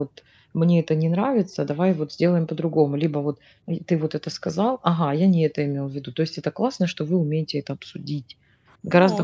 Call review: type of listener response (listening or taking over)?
taking over